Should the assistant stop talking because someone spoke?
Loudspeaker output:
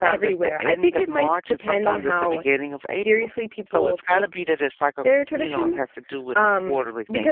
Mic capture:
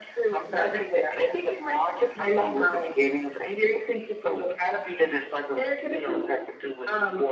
No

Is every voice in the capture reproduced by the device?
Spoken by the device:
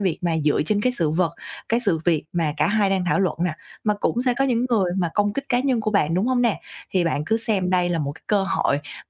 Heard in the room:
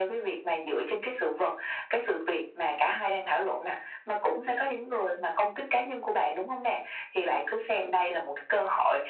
Yes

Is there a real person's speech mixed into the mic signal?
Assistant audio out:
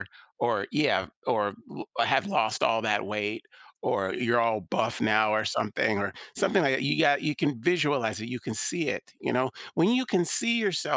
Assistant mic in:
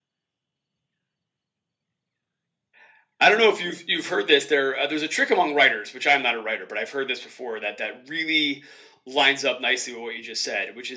Yes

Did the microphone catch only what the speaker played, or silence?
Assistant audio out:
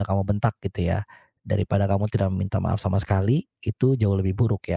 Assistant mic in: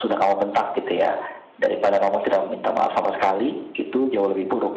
Yes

